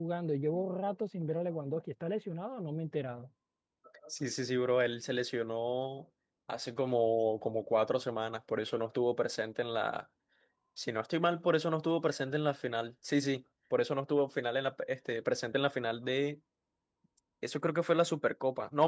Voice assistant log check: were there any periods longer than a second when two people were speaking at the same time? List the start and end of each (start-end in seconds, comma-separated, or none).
none